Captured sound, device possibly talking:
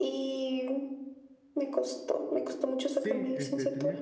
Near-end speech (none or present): present